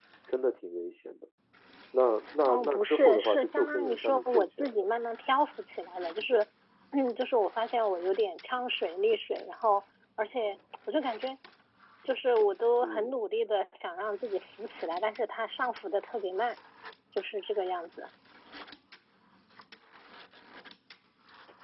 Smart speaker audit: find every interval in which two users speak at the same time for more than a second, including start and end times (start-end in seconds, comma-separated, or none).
2.4-5.0